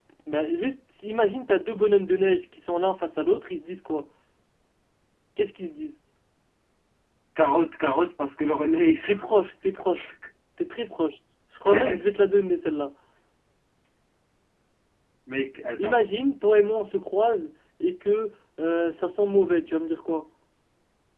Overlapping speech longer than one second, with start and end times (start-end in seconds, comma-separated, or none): none